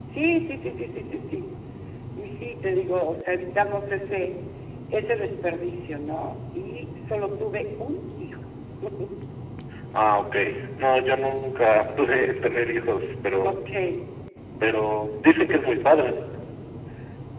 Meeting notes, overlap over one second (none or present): none